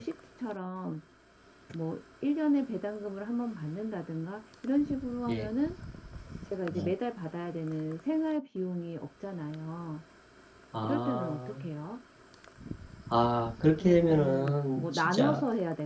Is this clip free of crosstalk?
No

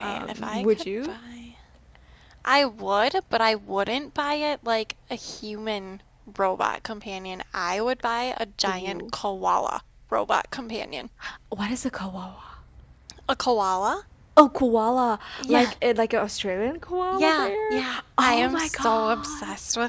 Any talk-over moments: Yes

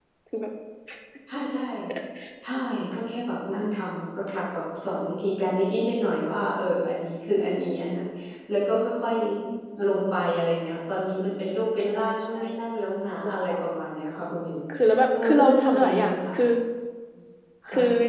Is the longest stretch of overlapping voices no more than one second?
No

